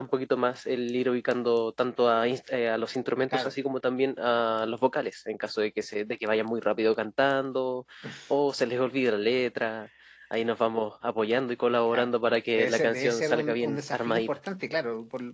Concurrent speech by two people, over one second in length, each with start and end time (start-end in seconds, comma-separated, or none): 12.6-14.3